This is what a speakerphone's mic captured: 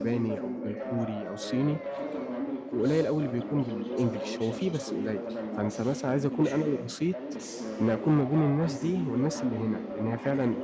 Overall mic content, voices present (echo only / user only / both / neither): both